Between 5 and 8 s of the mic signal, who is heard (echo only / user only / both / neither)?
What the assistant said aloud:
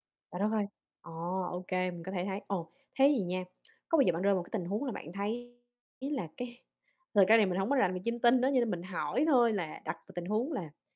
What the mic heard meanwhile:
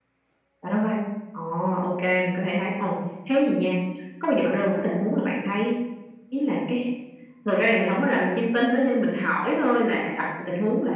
echo only